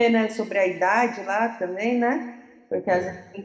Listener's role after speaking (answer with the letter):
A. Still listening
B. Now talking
A